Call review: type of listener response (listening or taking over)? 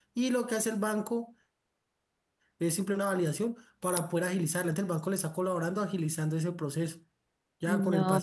taking over